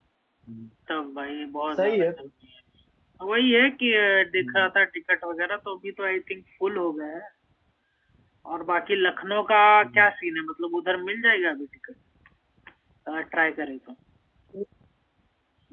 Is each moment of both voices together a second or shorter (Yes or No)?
Yes